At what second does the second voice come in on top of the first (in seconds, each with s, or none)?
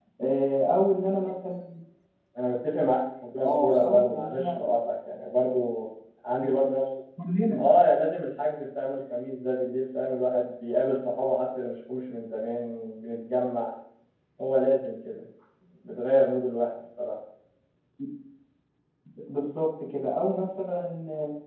3.4 s